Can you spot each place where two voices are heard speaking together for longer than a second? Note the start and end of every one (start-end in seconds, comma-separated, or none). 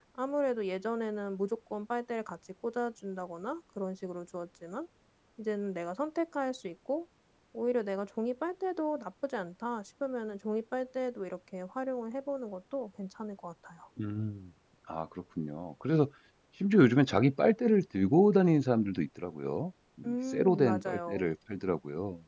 20.0-21.3